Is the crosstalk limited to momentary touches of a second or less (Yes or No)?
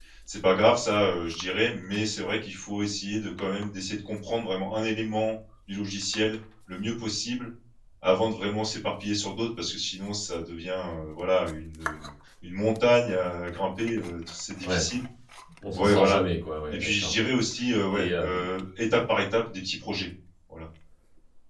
Yes